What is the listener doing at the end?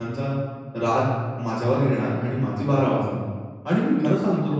listening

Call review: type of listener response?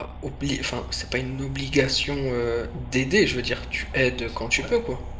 taking over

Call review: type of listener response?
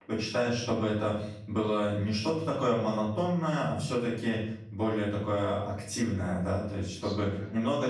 listening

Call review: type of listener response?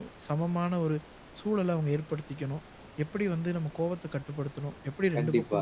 listening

